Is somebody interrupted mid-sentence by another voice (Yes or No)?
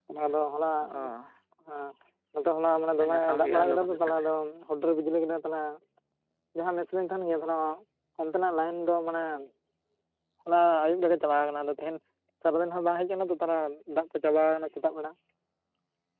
Yes